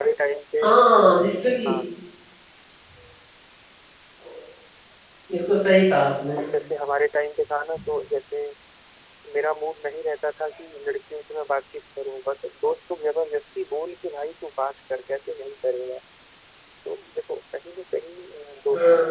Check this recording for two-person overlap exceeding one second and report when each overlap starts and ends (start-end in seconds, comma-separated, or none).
none